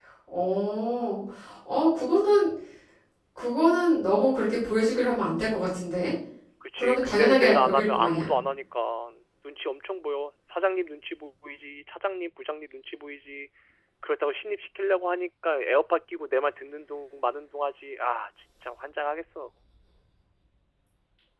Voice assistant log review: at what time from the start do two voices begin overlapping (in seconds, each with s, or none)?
6.8 s